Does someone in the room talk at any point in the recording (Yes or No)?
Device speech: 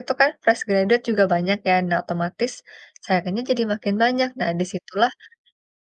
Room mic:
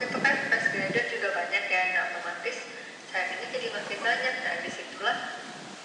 No